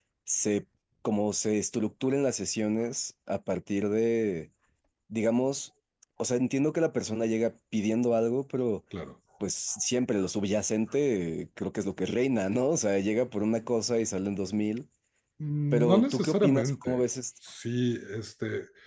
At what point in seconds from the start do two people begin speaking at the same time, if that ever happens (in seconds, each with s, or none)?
15.7 s